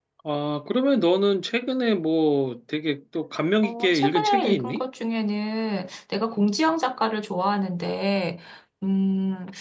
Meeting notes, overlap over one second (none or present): present